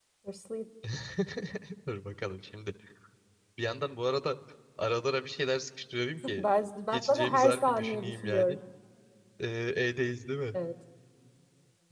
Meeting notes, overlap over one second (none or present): present